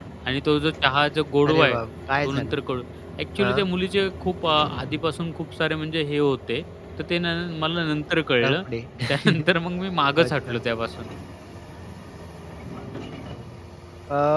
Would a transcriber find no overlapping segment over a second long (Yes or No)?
Yes